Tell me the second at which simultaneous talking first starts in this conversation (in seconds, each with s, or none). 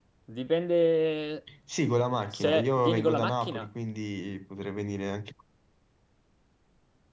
2.3 s